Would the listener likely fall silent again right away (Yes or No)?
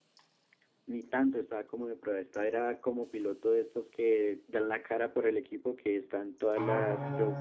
No